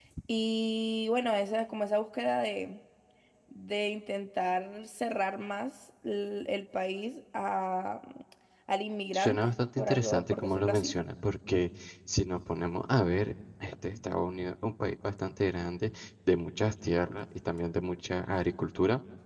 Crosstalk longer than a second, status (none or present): present